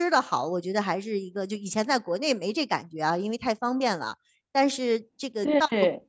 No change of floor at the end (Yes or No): Yes